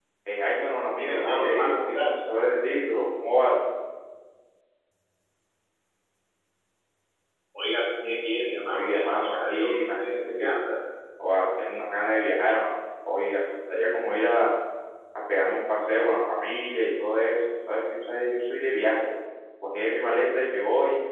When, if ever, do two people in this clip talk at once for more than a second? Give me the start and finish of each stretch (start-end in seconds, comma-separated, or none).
1.0-2.2, 8.7-10.5